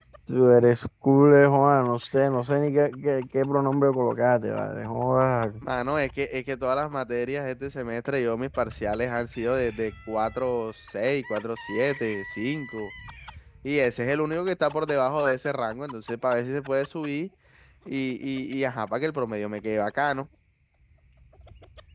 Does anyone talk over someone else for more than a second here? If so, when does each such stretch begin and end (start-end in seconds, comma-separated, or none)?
none